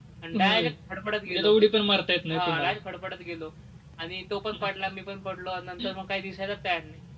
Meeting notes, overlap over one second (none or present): none